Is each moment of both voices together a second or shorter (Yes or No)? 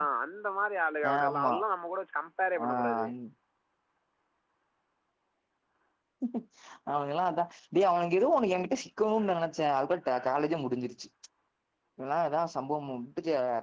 Yes